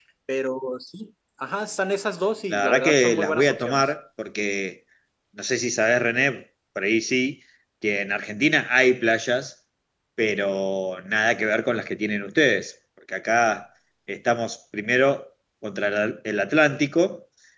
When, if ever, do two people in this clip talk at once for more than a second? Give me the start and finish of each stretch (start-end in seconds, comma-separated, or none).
2.5-3.9